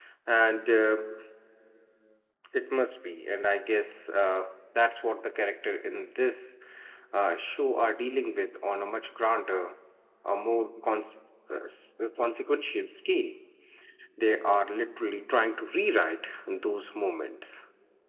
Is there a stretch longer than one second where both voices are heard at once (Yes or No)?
No